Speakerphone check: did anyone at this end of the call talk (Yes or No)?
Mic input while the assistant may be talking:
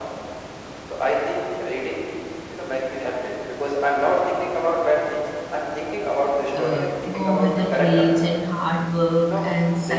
Yes